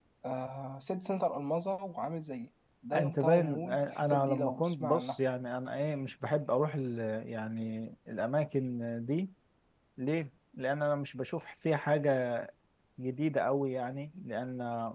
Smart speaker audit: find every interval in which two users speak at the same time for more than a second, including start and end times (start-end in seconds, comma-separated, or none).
2.9-5.2